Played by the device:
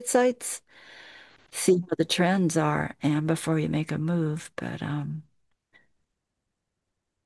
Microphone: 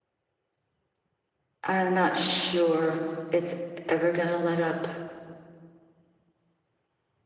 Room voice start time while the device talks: 1.6 s

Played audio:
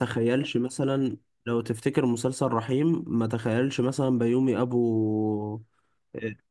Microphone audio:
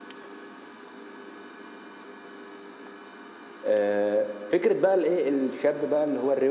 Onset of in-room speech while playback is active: 3.6 s

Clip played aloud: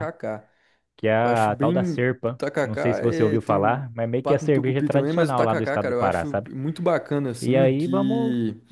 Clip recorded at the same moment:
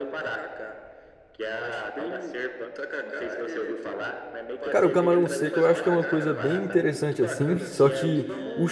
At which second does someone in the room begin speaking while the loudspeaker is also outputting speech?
4.7 s

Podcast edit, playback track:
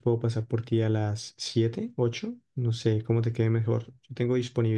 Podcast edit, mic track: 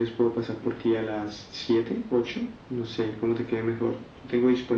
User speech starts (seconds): none

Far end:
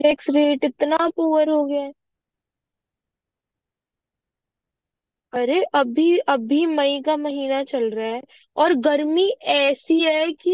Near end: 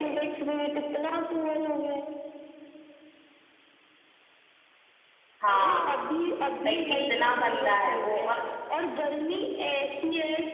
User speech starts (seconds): 5.4 s

